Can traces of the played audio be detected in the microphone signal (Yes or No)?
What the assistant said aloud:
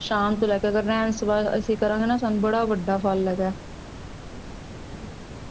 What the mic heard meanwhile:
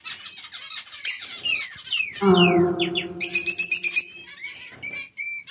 No